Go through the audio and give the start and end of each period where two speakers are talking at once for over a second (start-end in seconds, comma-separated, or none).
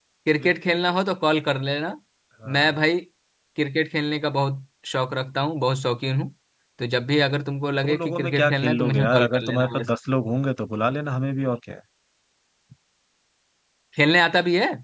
7.8-9.9